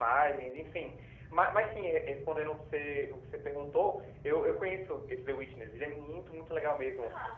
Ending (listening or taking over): listening